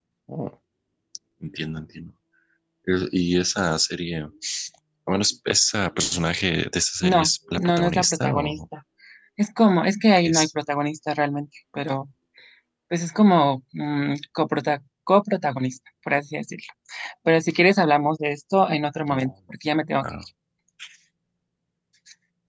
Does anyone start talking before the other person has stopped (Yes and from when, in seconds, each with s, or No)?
Yes, from 7.0 s